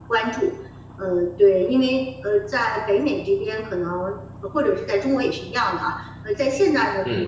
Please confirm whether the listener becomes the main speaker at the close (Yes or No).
No